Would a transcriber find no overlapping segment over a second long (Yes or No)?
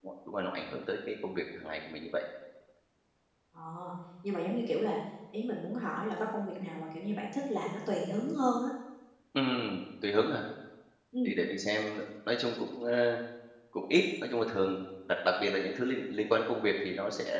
Yes